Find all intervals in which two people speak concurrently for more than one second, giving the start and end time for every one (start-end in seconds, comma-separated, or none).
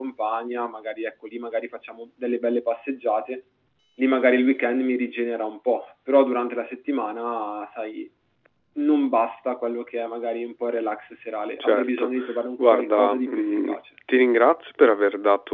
12.6-13.8